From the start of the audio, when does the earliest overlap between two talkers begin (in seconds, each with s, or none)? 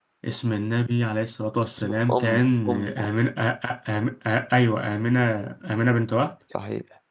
1.8 s